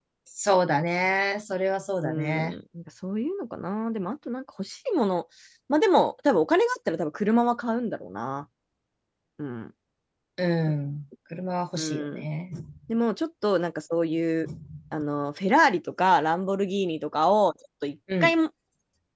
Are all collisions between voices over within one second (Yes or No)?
Yes